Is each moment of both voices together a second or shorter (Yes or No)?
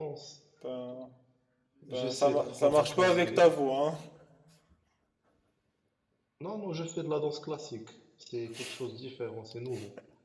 No